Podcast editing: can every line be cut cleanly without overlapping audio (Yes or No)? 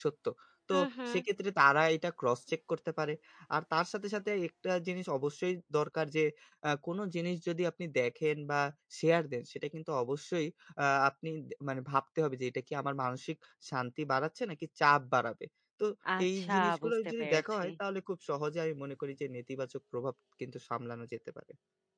No